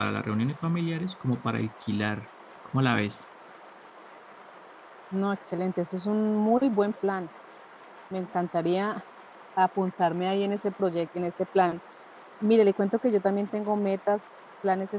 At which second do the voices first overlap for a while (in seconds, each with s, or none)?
none